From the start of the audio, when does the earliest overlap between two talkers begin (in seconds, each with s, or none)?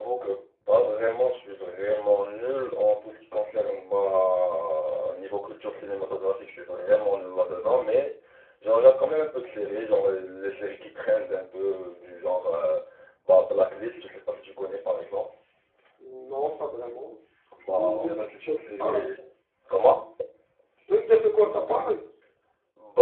17.6 s